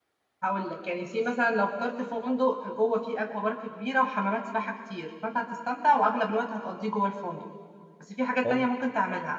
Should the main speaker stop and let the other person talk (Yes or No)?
No